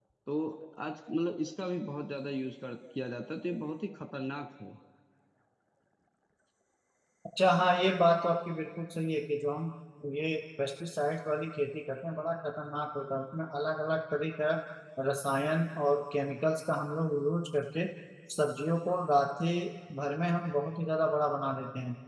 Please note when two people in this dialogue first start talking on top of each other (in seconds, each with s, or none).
none